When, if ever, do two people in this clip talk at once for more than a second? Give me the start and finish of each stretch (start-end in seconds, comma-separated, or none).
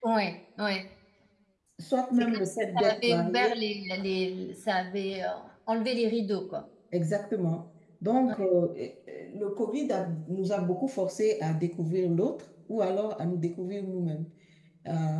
2.2-3.5